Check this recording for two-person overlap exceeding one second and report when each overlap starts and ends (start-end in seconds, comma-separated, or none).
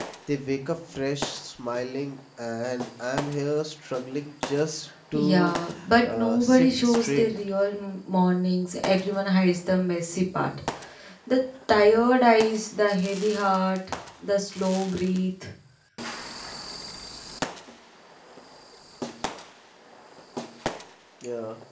6.0-7.2